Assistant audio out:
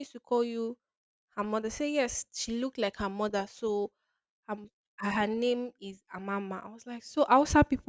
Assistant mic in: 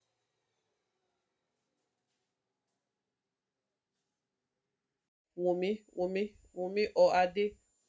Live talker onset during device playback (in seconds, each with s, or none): 5.4 s